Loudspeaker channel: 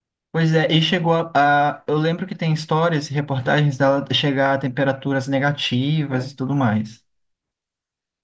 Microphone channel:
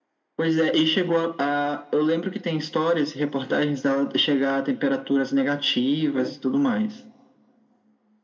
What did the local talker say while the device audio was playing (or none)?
none